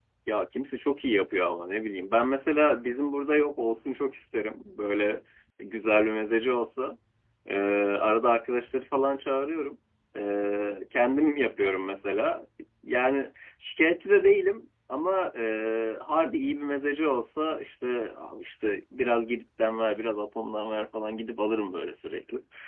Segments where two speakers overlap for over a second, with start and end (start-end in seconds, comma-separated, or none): none